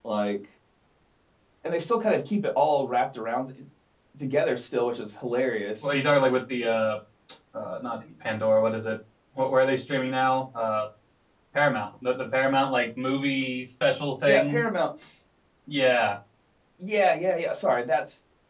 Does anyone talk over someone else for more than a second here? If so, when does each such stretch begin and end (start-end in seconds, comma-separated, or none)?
none